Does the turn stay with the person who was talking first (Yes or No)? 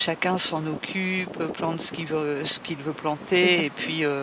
Yes